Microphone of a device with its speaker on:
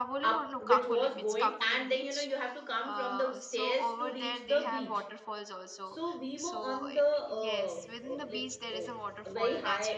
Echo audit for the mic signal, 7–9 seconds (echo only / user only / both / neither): both